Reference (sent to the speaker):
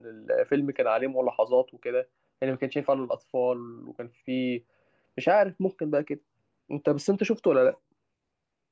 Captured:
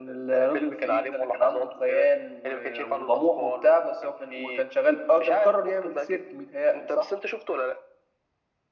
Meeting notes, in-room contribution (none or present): present